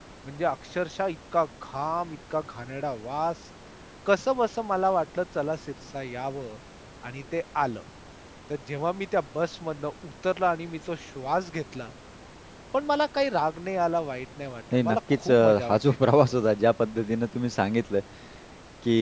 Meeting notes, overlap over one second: present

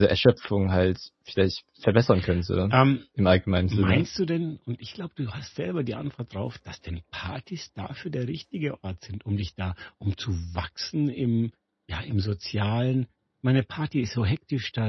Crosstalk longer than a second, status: none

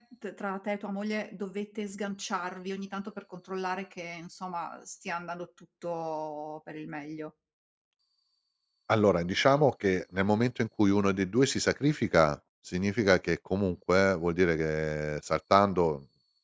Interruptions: none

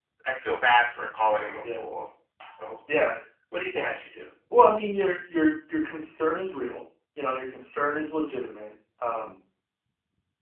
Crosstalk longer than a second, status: none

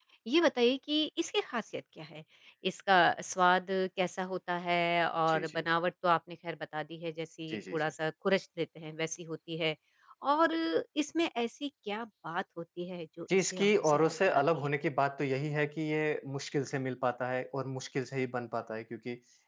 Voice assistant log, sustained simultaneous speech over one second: present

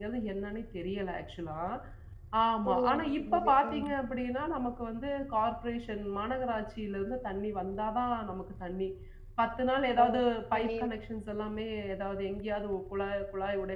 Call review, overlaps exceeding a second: present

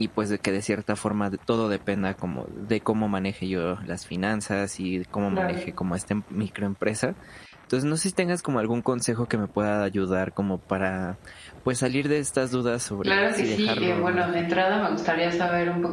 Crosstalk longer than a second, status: present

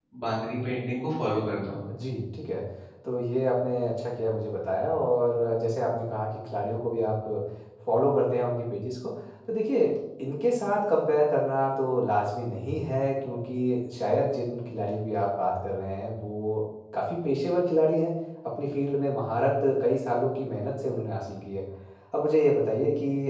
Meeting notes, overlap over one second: none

